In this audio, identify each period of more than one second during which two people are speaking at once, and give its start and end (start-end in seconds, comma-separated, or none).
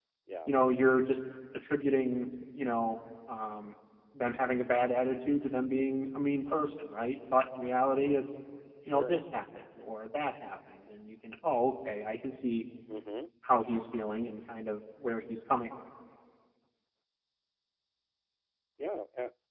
none